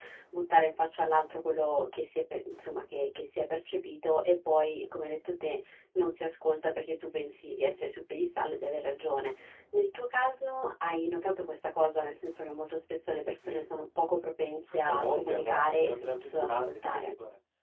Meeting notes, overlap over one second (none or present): present